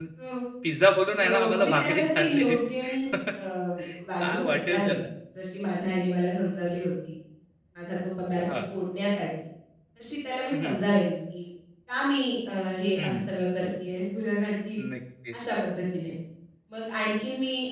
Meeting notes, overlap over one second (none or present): present